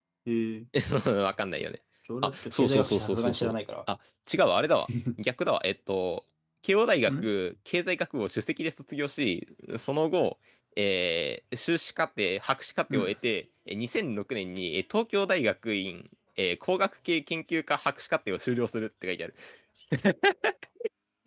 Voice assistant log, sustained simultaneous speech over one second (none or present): present